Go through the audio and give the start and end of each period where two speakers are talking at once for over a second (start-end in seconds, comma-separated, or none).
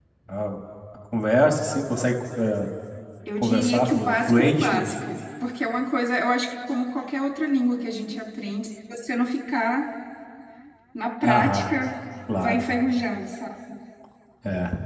3.4-4.9